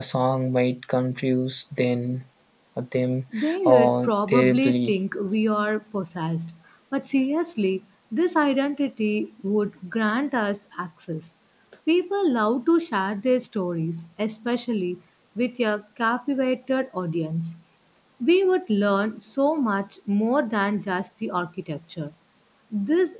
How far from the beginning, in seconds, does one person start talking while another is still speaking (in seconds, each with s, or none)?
3.6 s